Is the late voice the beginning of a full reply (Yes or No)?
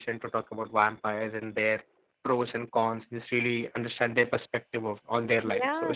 Yes